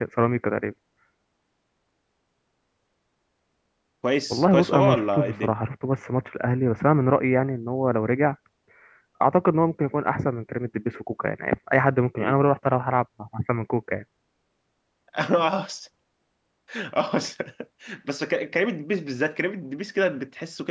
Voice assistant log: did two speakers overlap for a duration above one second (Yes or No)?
Yes